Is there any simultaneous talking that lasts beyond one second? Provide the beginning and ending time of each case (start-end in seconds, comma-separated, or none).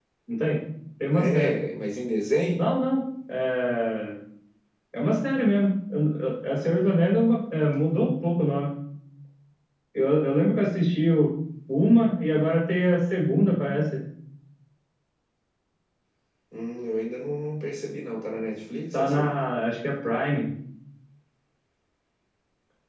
none